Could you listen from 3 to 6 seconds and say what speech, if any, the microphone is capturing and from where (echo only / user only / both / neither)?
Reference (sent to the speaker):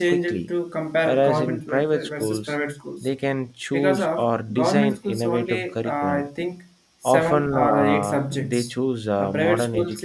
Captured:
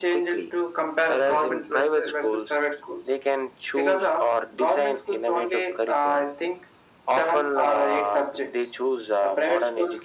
echo only